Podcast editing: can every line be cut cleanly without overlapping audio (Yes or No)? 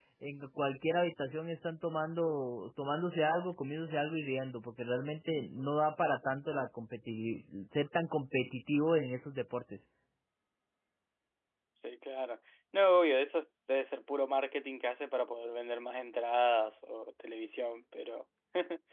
Yes